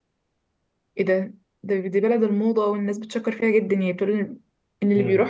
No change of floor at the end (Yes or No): No